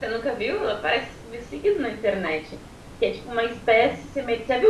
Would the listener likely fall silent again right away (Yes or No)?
Yes